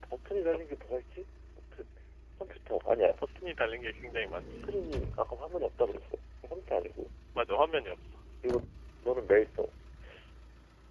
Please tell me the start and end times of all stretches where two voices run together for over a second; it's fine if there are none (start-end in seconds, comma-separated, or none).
none